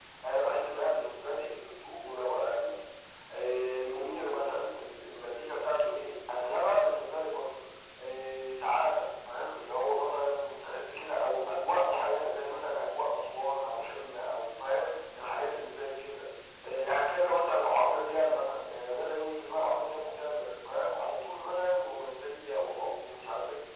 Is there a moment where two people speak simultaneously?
No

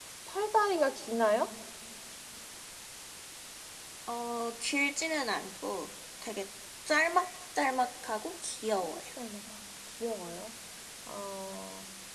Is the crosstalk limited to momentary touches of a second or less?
Yes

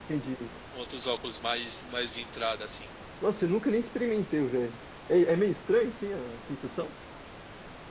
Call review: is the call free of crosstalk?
Yes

